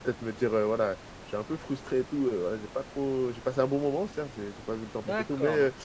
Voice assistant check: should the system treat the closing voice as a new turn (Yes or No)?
Yes